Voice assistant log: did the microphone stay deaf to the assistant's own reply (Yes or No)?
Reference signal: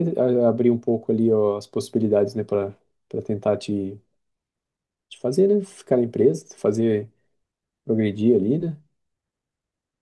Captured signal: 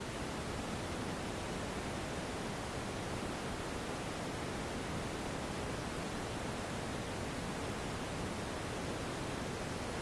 Yes